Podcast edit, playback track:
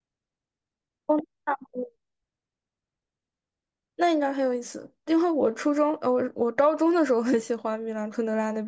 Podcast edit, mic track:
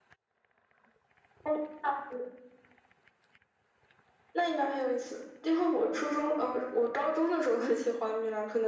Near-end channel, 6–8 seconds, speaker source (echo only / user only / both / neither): echo only